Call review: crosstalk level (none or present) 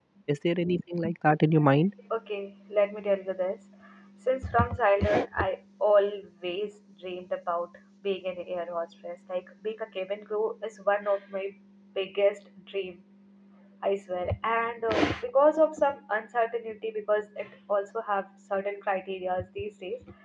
none